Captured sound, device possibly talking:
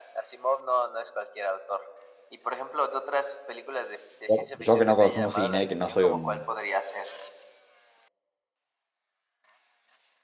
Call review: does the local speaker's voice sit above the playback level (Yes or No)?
Yes